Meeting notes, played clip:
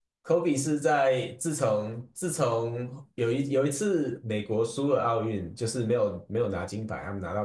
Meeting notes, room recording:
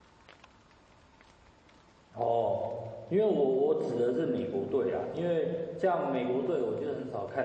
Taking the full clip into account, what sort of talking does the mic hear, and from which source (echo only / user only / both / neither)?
user only